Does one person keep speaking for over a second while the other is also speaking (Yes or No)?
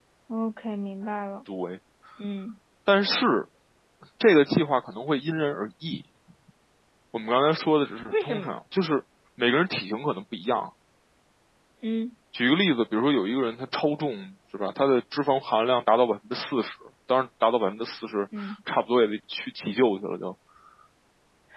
No